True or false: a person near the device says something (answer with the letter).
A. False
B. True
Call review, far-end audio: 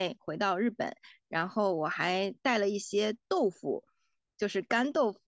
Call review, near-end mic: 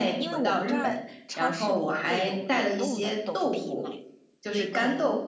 B